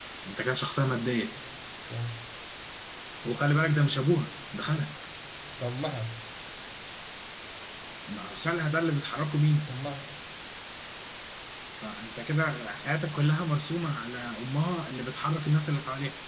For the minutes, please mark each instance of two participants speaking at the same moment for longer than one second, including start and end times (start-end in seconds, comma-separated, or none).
none